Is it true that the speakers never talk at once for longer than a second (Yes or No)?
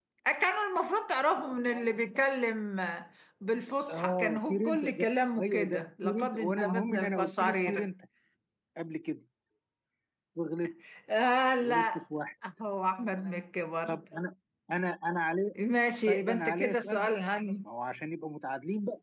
No